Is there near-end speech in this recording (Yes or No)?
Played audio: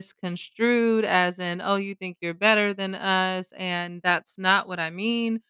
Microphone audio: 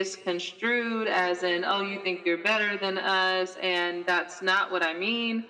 No